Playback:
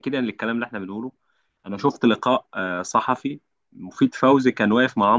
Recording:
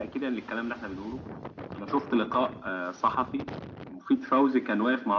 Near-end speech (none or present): none